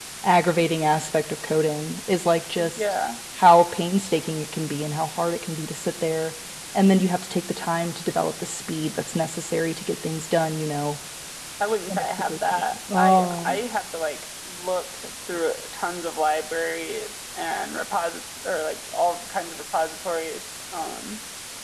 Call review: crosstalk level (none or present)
present